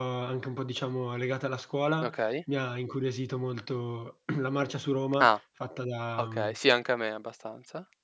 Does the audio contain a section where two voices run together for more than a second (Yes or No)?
No